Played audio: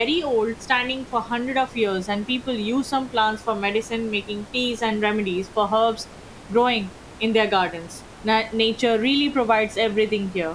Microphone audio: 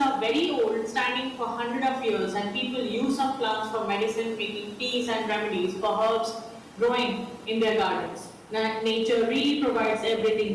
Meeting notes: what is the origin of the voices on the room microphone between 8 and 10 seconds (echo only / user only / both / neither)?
echo only